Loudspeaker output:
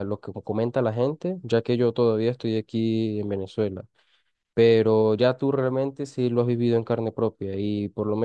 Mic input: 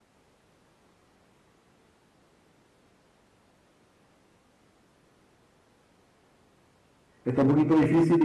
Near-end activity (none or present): present